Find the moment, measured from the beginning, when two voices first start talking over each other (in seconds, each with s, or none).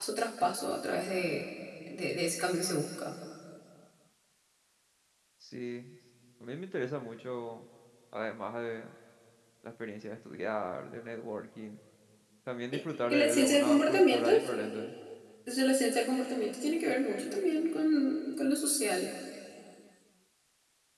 13.0 s